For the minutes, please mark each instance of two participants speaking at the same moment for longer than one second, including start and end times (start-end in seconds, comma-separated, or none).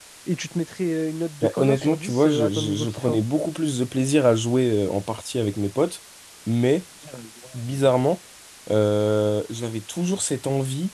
1.4-3.2